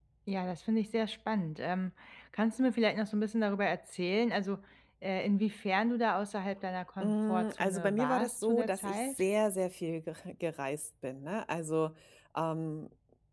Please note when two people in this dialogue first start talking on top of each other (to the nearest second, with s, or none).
7 s